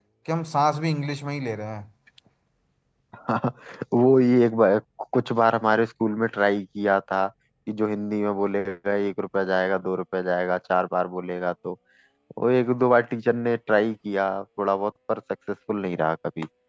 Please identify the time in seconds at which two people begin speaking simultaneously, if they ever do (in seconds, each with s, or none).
none